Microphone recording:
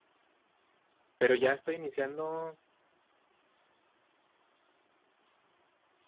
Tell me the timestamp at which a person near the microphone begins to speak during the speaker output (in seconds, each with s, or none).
1.2 s